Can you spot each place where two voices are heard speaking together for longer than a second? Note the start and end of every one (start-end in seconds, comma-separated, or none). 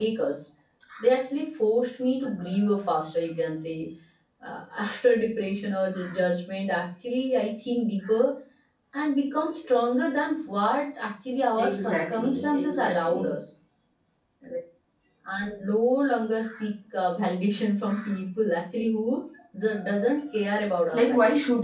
11.6-13.4